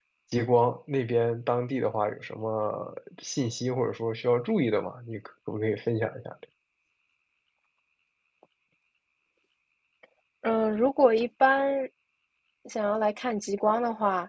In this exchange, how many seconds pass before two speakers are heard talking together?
none

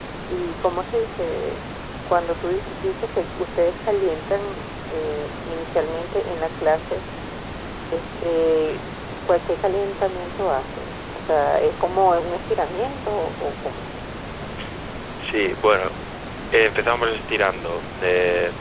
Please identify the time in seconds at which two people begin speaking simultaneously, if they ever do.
none

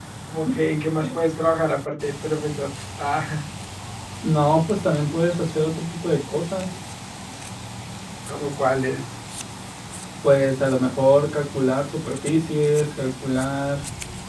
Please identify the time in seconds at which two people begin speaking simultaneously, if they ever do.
none

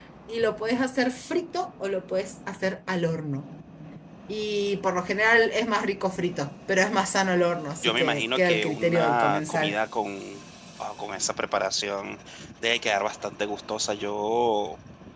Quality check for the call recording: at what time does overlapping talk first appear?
7.8 s

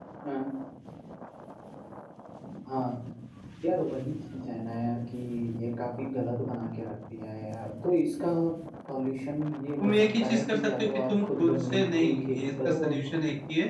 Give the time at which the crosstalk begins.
9.8 s

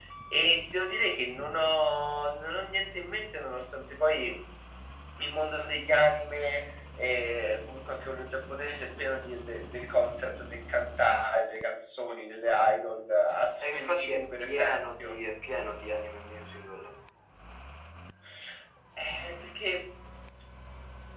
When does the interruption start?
13.6 s

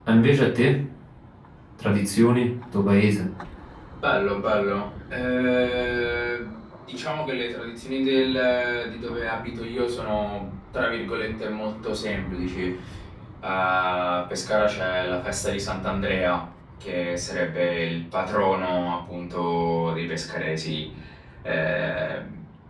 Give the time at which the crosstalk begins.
none

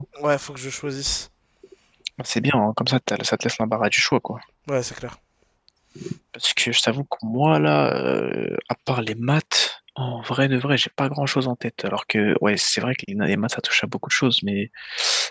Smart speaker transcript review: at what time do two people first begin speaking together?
none

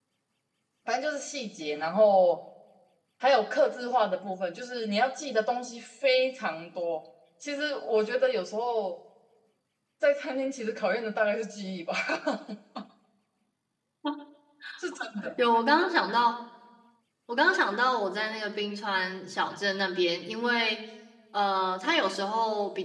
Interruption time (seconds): none

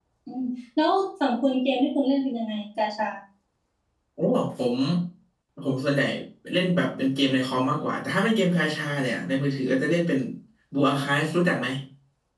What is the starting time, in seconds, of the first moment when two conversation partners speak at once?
none

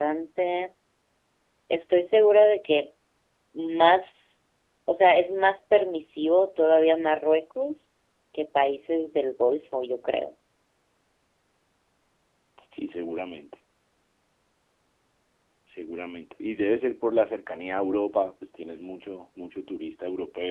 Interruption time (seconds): none

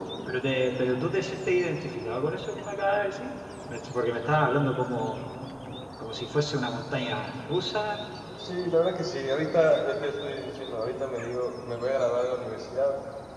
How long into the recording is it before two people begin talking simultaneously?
none

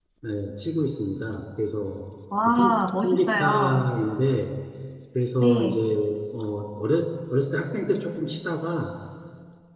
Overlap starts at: 2.5 s

